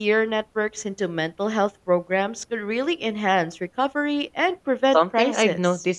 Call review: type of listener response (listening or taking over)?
taking over